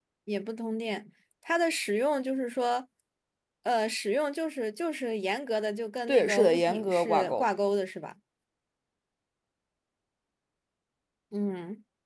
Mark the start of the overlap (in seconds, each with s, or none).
6.1 s